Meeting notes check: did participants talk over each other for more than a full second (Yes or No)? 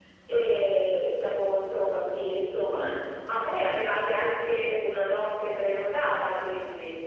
No